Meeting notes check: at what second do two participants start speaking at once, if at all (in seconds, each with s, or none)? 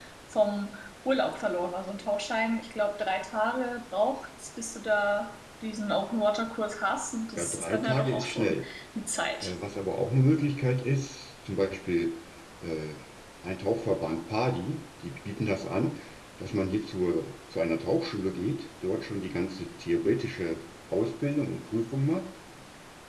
7.4 s